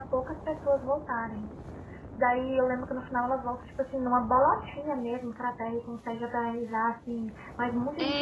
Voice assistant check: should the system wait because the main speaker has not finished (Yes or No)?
No